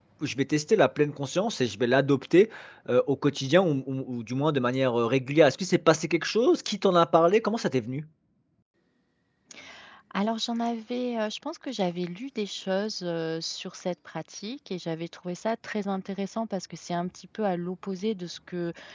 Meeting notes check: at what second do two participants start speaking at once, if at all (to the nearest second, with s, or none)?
none